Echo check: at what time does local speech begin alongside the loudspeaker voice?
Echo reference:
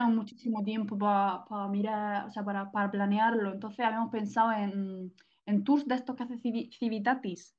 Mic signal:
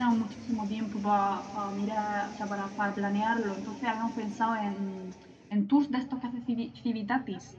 none

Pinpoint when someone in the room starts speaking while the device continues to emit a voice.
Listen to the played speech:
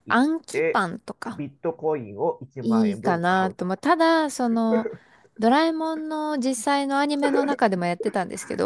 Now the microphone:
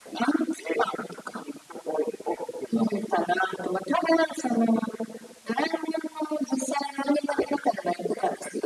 none

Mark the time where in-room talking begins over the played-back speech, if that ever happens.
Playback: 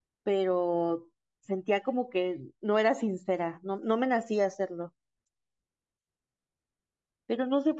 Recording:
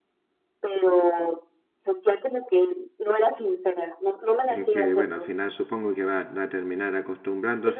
4.5 s

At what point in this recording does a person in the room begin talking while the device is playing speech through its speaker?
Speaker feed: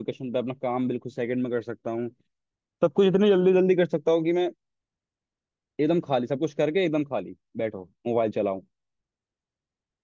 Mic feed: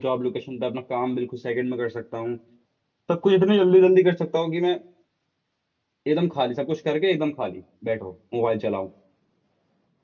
none

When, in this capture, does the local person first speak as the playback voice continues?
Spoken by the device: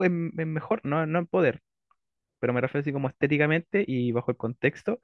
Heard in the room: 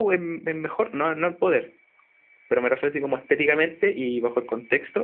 none

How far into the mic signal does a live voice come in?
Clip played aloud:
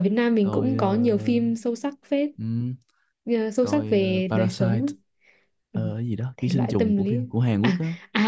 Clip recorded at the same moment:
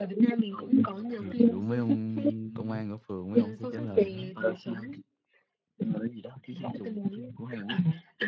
1.1 s

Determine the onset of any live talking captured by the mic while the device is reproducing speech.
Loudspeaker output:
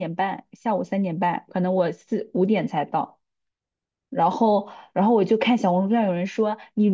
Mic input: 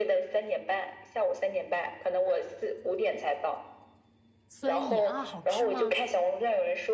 4.5 s

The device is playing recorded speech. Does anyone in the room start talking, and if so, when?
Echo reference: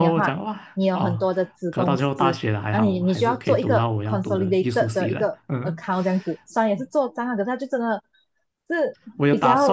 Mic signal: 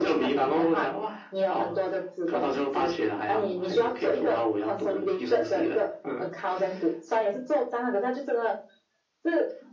none

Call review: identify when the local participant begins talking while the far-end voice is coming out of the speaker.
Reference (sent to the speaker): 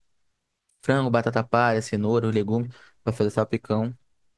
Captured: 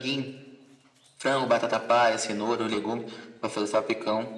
none

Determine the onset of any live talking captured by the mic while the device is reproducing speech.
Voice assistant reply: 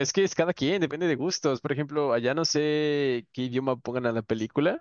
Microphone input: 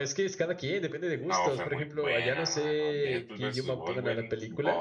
1.2 s

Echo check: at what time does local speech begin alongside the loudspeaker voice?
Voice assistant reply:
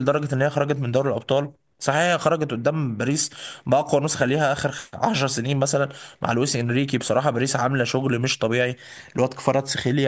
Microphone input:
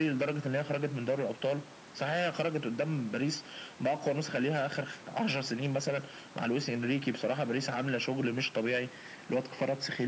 none

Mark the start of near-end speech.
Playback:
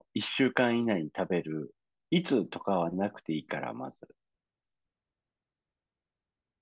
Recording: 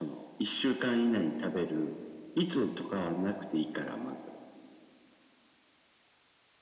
none

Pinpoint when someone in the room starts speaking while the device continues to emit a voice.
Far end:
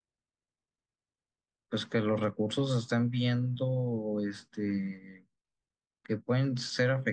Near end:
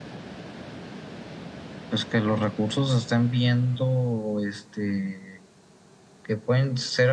none

